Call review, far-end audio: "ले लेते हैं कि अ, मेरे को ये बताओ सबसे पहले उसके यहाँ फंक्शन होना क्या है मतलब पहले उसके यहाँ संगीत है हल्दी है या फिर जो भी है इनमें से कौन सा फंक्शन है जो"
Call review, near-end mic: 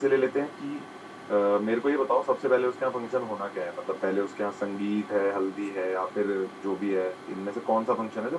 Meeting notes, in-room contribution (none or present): none